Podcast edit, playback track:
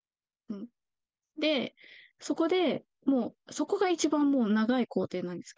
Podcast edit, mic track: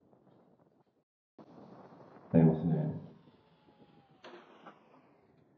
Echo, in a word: none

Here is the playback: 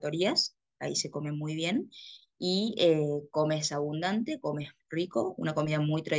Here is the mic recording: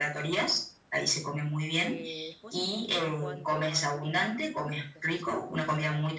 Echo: present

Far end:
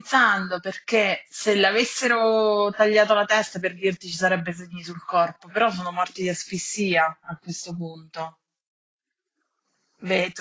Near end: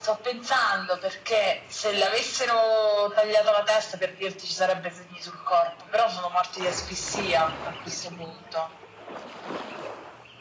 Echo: present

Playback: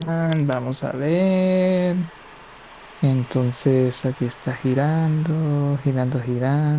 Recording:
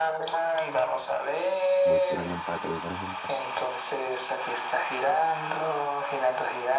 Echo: present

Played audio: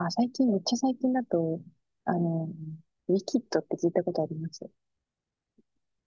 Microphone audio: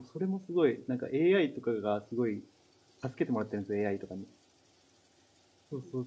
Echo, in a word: none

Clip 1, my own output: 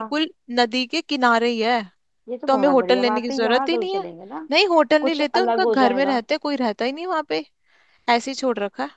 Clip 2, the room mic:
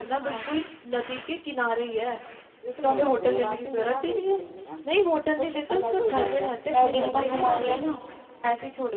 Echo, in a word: present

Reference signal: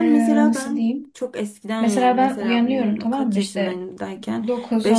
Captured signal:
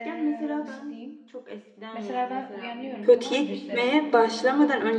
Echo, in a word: present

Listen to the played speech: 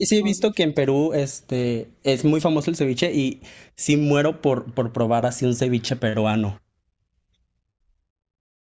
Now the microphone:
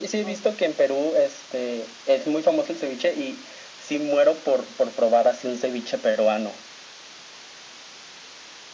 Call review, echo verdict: present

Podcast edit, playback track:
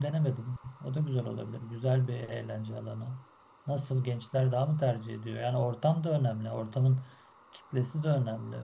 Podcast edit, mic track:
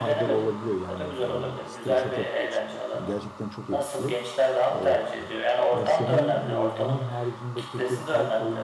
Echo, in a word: present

